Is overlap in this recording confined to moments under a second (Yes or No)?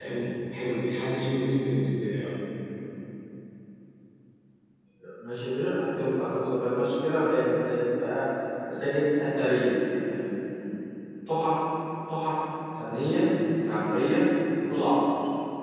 Yes